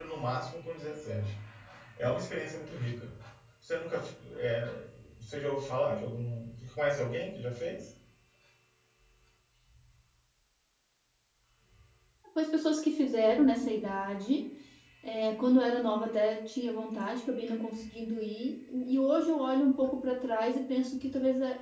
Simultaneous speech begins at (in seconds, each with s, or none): none